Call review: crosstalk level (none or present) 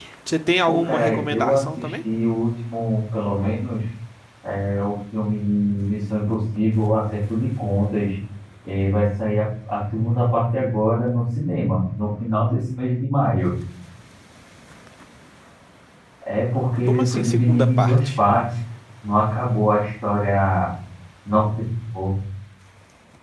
present